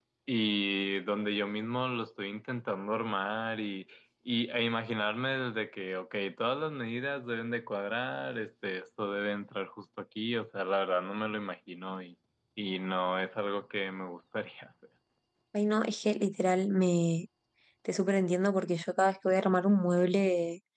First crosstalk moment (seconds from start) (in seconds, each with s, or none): none